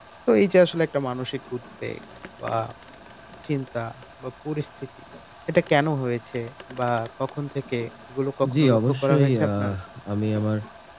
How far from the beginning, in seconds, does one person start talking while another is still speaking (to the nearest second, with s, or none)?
8 s